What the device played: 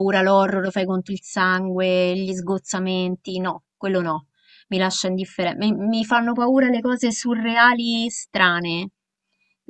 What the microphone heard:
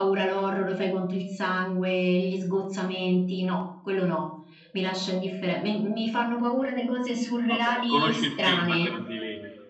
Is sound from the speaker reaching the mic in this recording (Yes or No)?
Yes